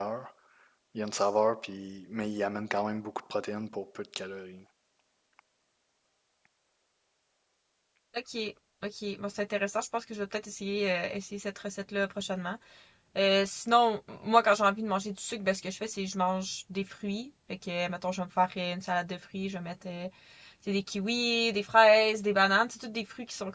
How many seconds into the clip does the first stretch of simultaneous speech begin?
none

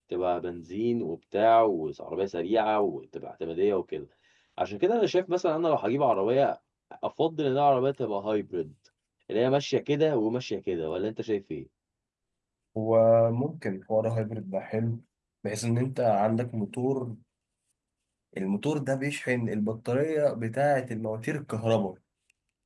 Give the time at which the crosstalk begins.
none

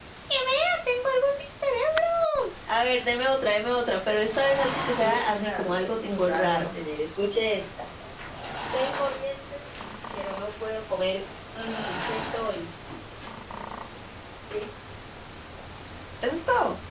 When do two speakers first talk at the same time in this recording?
4.5 s

